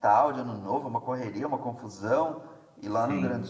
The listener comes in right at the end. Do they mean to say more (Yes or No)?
No